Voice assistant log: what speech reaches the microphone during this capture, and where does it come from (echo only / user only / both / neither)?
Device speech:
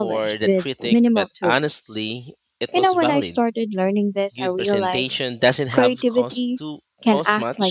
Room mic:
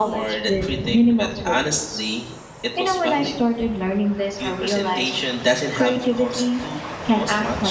echo only